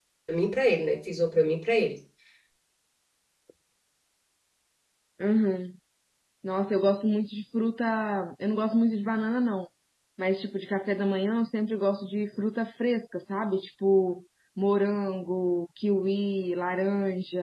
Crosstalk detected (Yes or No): No